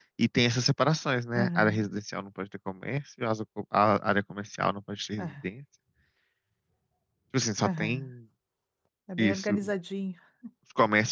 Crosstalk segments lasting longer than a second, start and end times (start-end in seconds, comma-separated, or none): none